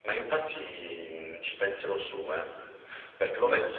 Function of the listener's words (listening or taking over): listening